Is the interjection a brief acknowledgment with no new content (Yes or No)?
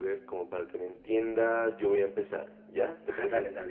No